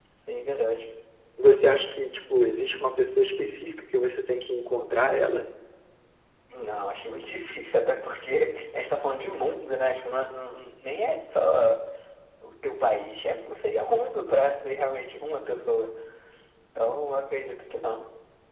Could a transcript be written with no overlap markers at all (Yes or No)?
Yes